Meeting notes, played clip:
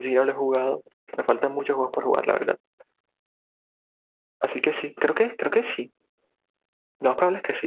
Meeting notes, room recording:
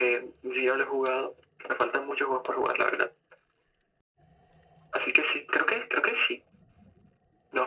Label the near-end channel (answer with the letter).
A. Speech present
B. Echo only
B